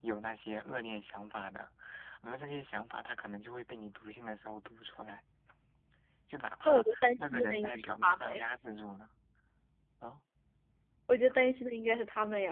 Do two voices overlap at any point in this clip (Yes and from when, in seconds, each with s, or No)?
Yes, from 6.6 s